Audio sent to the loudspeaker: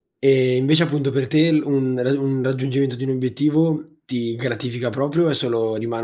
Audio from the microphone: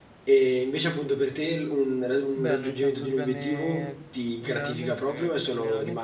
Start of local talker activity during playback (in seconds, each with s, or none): 2.4 s